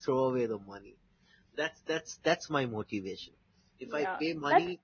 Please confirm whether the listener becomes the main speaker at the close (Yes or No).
Yes